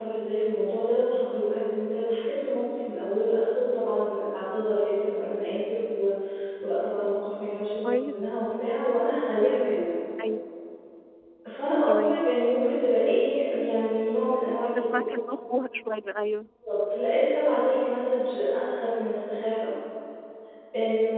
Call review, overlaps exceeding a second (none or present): none